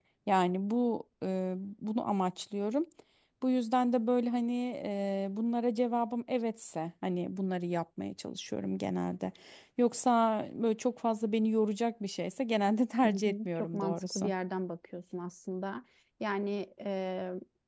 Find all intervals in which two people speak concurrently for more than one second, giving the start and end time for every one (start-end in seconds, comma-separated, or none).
13.0-14.3